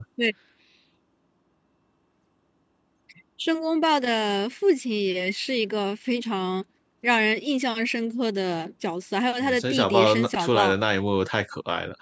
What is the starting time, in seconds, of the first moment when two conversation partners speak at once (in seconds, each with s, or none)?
9.4 s